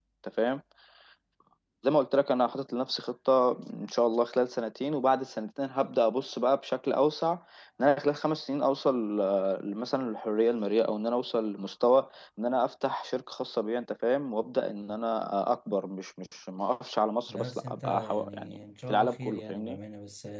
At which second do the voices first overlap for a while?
17 s

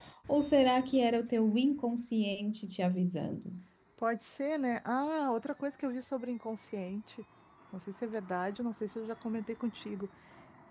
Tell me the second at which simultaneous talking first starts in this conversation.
none

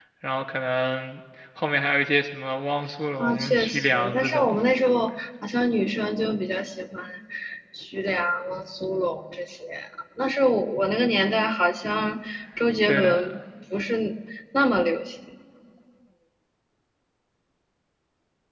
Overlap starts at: 3 s

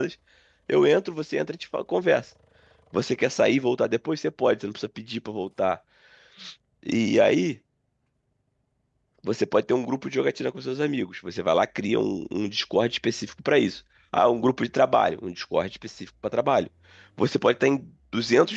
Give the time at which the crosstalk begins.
none

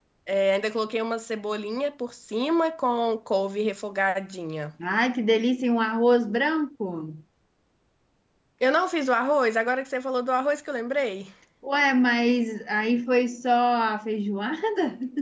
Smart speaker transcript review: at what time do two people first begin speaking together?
none

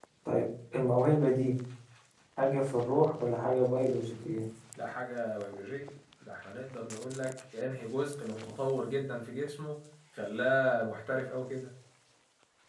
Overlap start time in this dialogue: none

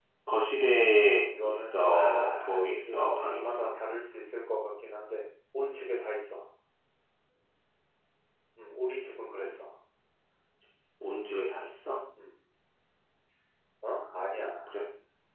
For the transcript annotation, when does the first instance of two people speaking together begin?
1 s

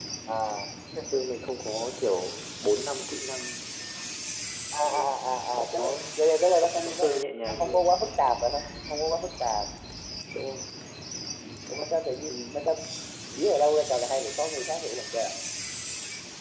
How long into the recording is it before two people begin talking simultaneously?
5 s

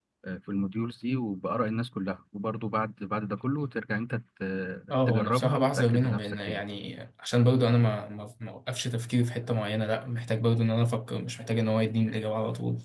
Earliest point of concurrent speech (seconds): 5 s

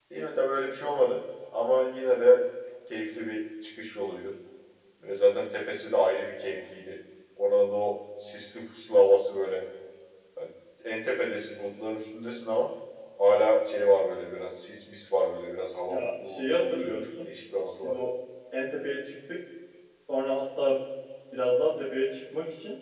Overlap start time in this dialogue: 16 s

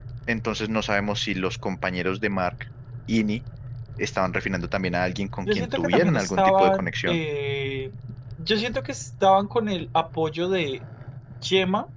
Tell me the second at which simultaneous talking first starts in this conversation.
5 s

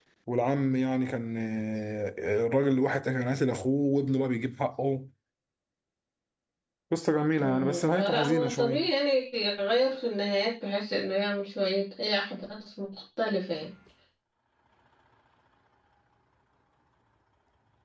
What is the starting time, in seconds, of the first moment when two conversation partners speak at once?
7 s

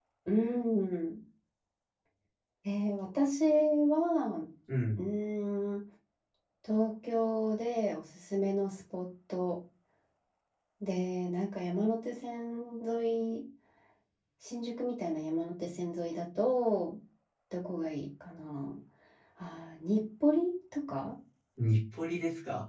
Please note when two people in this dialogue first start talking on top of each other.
none

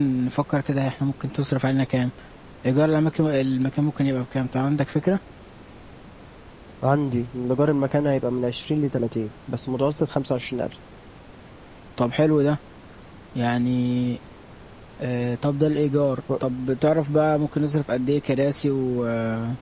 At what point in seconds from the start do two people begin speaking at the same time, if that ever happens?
none

